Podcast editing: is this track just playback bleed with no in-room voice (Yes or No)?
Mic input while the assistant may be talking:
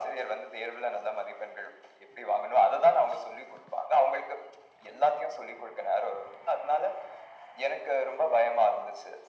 Yes